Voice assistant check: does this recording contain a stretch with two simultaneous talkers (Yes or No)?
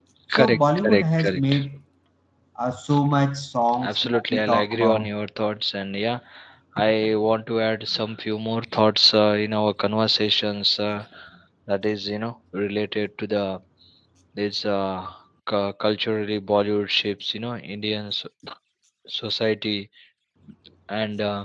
Yes